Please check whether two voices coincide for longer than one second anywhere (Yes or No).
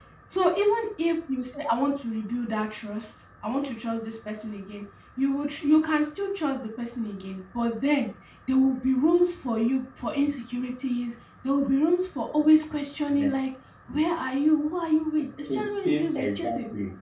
Yes